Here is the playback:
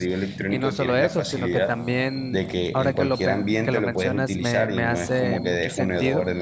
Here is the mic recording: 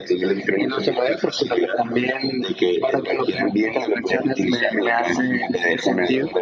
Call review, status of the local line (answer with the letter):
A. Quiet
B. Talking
A